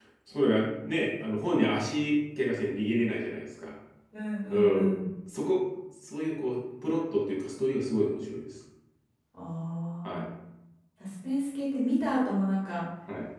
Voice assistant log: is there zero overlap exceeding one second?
Yes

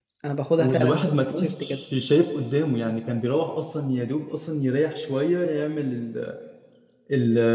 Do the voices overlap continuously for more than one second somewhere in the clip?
Yes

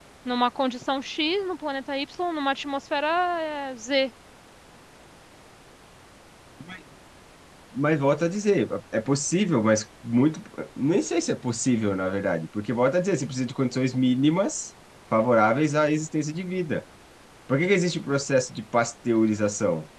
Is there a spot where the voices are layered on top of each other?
No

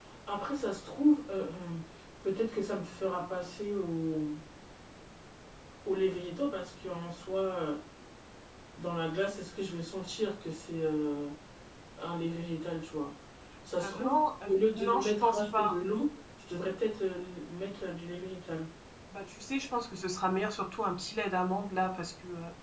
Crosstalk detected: Yes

